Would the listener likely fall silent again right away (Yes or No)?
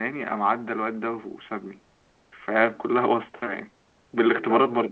No